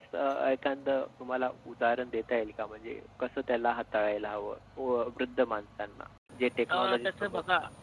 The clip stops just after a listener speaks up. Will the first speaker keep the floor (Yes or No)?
No